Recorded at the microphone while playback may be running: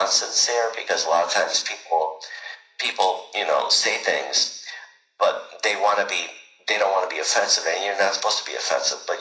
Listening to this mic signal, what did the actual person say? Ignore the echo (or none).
none